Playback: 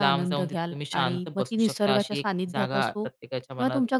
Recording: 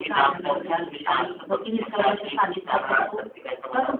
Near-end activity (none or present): none